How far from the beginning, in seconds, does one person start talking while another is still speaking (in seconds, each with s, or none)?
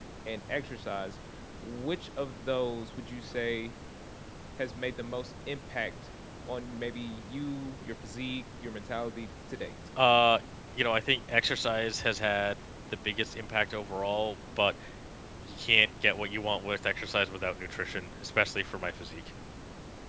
none